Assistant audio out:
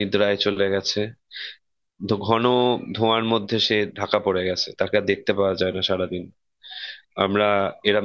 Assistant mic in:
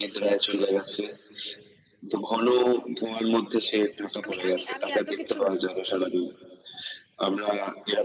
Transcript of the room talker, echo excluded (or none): আমি আমি আমি এত কিছু